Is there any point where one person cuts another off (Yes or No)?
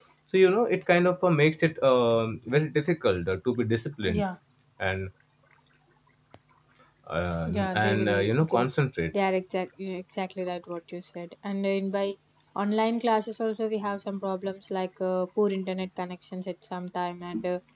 Yes